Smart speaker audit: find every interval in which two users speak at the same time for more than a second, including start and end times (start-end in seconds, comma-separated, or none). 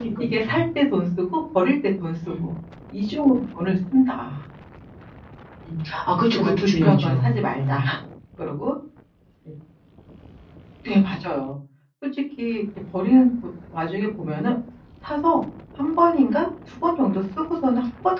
6.4-7.8